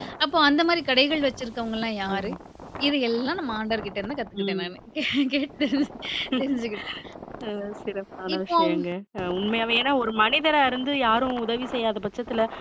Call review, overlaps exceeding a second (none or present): none